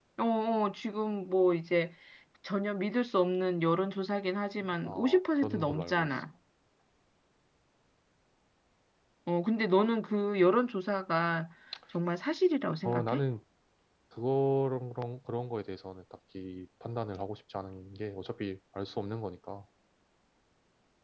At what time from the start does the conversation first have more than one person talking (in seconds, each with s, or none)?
4.8 s